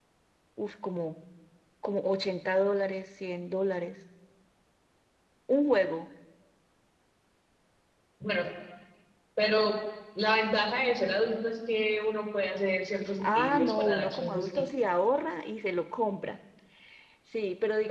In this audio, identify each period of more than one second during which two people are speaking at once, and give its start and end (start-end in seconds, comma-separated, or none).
13.2-14.5